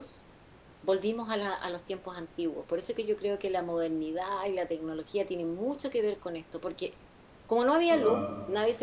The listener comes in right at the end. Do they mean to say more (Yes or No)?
No